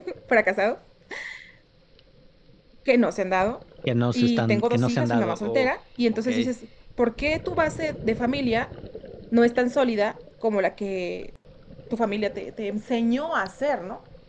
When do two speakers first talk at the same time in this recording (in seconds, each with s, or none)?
4.2 s